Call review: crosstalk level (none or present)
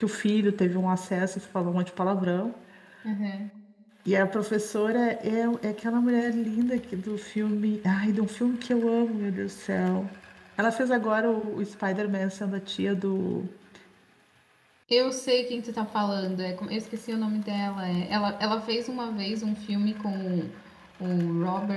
none